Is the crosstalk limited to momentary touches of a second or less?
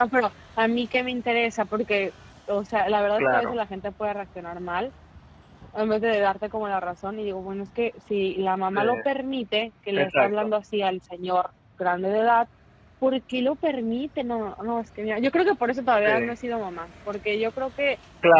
Yes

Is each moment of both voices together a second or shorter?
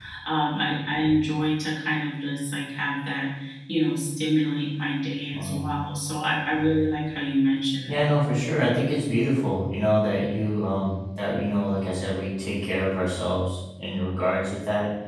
Yes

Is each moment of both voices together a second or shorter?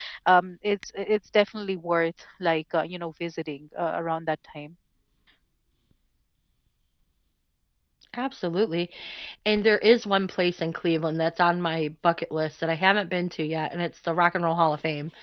Yes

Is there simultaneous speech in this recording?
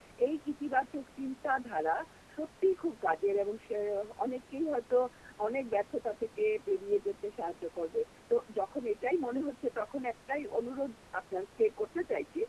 No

